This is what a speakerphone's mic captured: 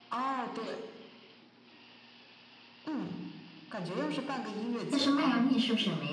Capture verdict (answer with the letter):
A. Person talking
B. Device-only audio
A